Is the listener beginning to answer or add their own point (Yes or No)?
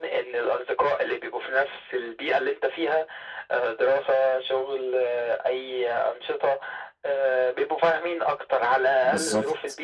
Yes